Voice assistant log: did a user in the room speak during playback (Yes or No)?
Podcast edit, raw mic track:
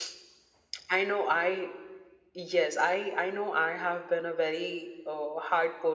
No